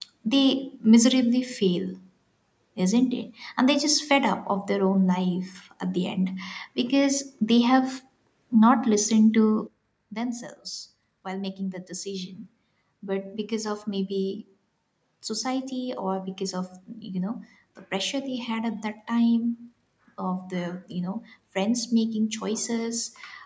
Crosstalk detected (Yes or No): No